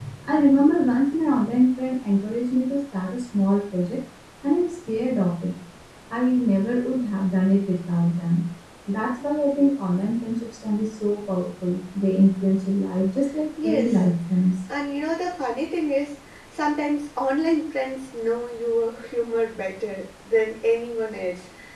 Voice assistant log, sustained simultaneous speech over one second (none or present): none